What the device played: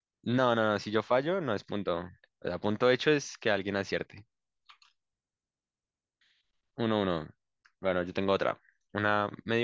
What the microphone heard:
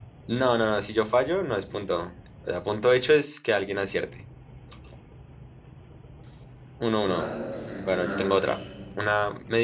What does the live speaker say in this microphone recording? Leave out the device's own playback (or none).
no, no, no, es, un- no, no, es,